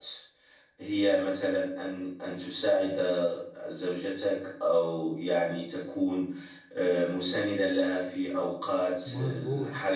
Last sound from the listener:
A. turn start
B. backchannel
B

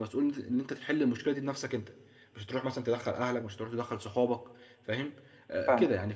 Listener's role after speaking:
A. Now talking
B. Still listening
B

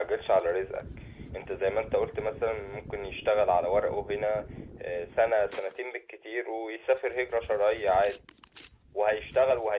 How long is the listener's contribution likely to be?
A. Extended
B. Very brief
B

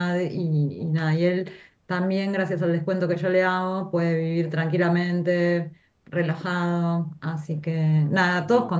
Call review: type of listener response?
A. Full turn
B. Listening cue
B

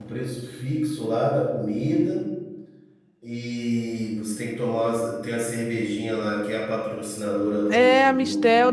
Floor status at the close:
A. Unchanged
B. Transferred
B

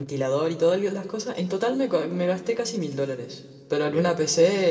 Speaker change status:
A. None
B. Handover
A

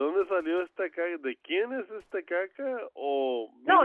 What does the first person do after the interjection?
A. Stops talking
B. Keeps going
A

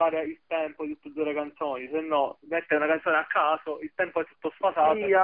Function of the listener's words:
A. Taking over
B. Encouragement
A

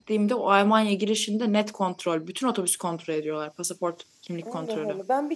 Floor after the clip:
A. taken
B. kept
A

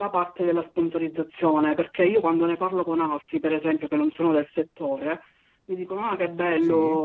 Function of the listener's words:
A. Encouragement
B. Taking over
A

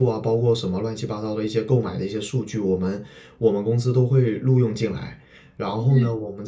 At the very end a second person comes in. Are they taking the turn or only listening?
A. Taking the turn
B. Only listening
B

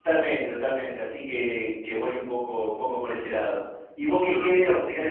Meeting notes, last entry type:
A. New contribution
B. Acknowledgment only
B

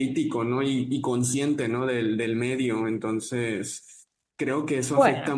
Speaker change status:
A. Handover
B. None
B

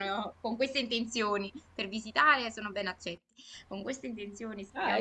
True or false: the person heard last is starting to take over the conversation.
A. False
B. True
B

